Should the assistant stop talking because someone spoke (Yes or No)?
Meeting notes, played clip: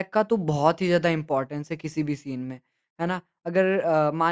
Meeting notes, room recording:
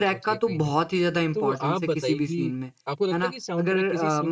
Yes